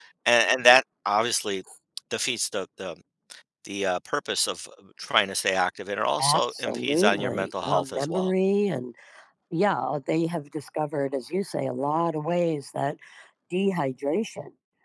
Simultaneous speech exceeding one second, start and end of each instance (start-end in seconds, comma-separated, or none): 6.2-8.3